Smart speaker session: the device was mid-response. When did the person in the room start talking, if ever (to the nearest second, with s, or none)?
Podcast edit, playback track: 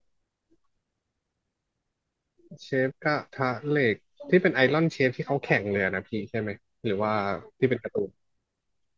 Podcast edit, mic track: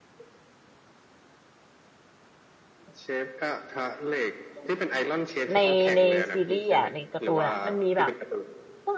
6 s